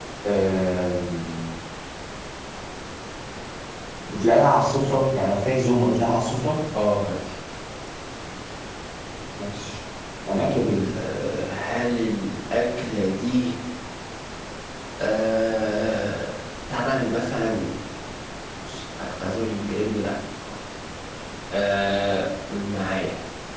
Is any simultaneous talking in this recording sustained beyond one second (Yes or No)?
No